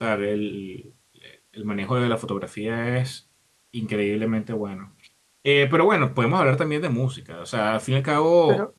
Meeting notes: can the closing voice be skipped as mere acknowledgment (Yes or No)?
No